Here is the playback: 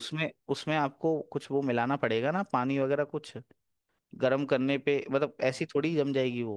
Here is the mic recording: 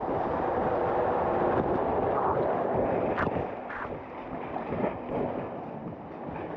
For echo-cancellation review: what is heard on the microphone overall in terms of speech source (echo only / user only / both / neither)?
neither